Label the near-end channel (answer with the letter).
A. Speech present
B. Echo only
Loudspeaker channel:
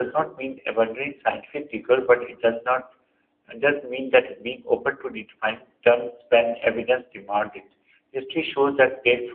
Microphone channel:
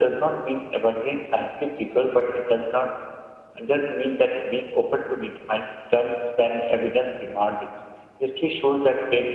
B